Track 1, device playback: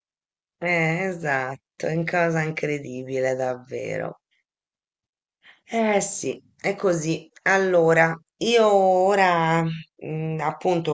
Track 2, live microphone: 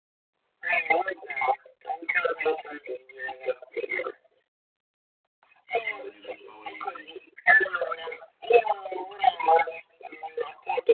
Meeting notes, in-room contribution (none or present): present